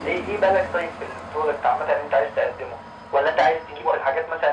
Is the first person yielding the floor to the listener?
No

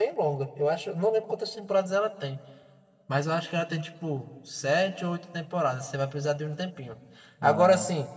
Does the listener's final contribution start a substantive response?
No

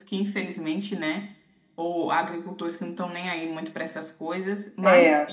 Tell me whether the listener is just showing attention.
Yes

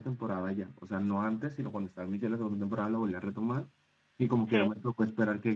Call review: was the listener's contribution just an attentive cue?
Yes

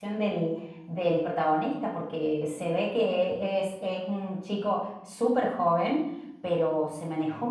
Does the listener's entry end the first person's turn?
No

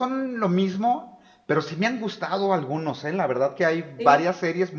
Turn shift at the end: No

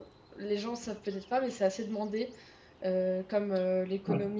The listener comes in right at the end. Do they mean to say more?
No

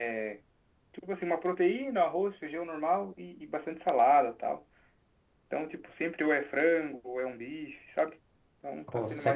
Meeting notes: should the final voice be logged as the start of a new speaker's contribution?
Yes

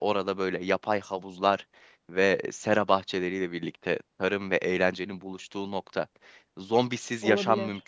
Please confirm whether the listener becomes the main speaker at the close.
No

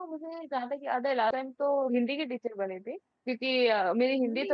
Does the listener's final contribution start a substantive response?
No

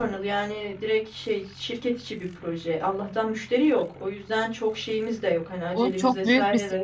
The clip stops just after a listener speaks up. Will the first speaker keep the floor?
No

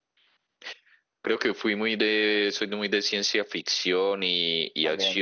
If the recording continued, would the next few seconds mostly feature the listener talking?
No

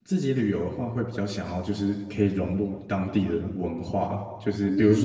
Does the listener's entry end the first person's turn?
No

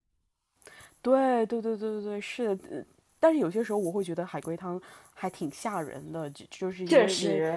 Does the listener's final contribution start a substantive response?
No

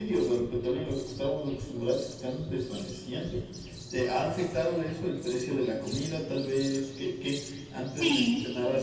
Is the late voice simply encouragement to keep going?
Yes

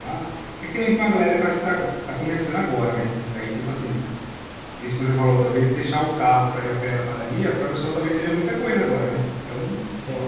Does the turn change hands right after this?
No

